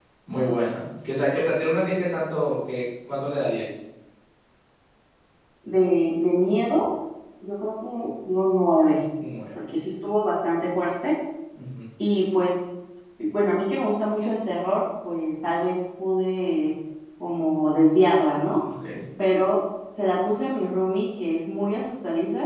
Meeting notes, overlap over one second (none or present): none